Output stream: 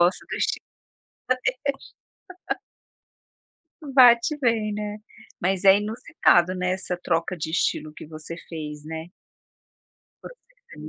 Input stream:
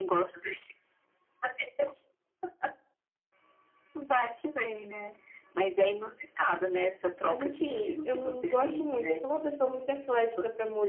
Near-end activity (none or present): present